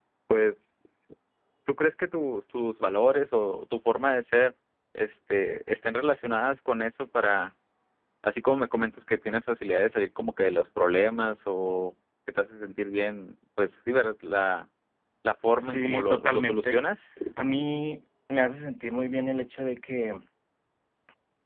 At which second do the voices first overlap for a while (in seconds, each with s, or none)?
15.6 s